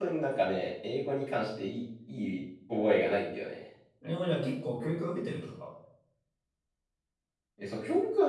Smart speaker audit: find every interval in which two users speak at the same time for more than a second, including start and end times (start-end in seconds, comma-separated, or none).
none